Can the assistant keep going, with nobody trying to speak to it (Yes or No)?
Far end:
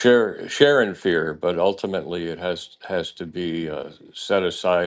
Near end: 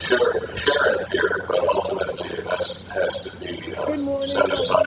No